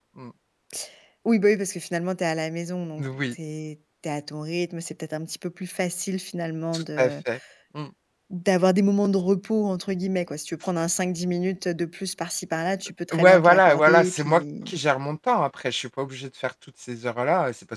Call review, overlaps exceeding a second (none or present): present